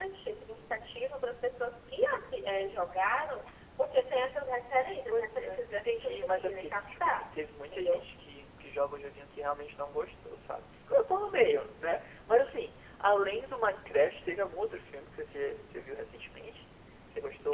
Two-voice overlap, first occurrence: 5.1 s

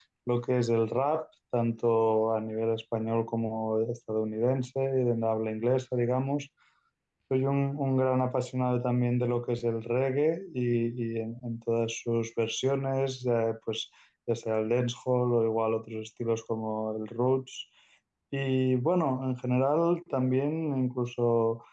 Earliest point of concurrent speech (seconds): none

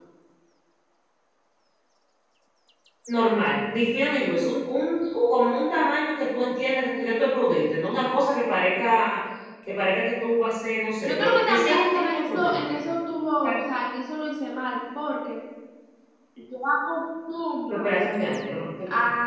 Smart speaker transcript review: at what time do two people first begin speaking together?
11.0 s

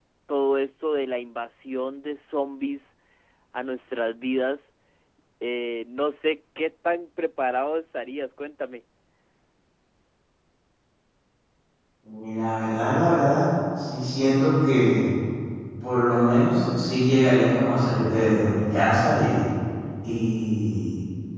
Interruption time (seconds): none

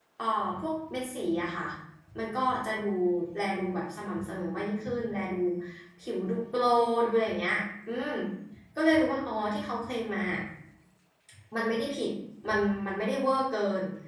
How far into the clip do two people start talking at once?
none

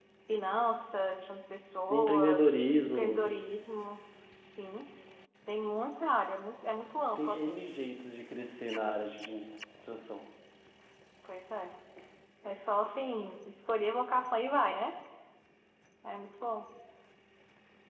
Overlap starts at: 1.9 s

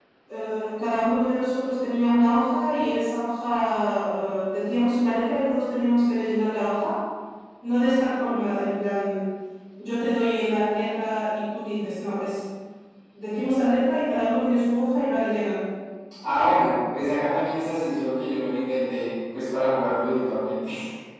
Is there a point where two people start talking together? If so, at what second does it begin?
none

